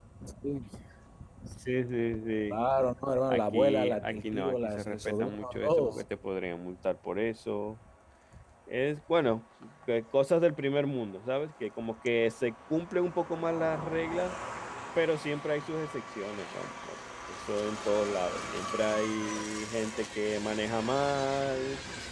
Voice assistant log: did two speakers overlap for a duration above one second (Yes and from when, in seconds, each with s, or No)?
Yes, from 3.3 s